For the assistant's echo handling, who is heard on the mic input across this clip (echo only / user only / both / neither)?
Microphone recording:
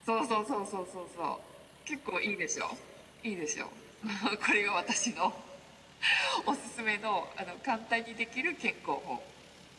echo only